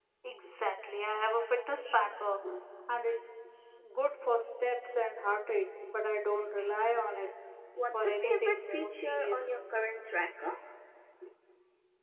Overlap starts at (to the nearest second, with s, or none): 8 s